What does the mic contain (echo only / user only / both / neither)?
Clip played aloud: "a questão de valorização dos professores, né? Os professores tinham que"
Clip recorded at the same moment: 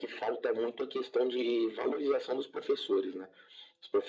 echo only